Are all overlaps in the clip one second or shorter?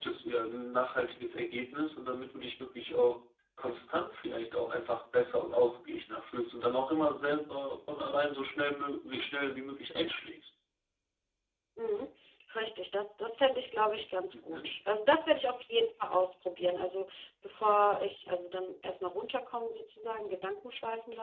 Yes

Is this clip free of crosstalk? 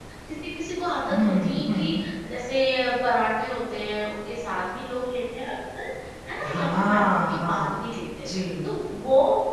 No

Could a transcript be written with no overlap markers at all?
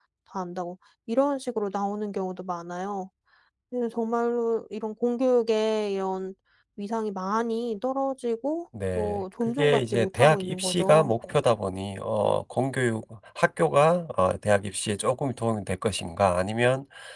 No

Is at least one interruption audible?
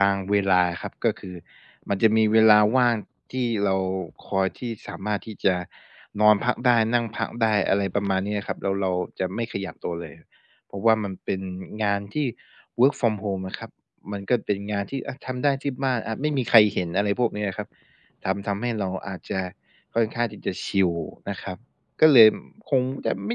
No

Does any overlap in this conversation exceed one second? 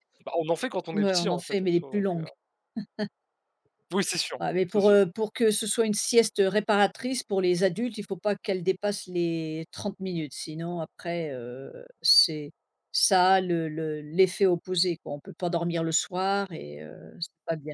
Yes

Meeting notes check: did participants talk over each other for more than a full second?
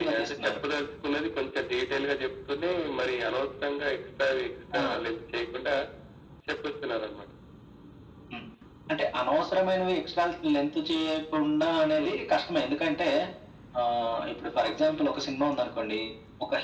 No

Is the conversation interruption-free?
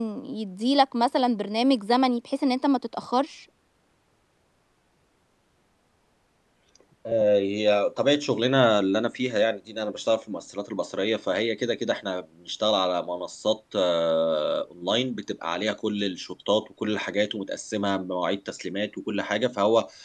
Yes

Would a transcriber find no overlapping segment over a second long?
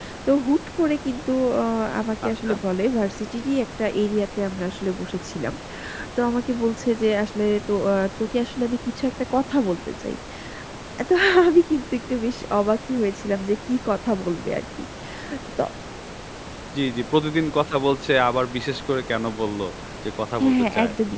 Yes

